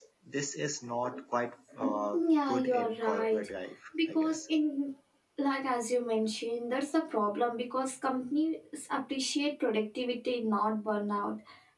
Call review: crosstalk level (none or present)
present